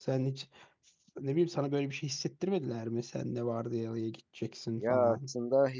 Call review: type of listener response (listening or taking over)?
taking over